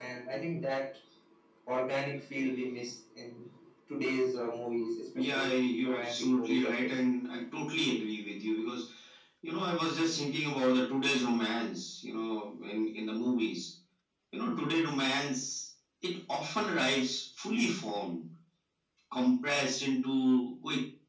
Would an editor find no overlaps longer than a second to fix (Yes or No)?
No